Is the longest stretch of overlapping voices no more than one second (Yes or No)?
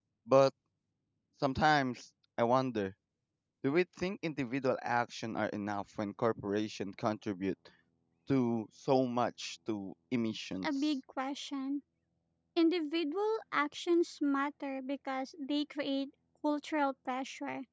Yes